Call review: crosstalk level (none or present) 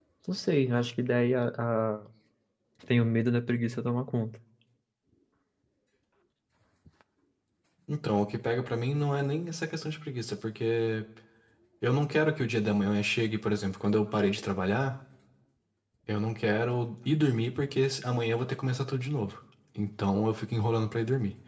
none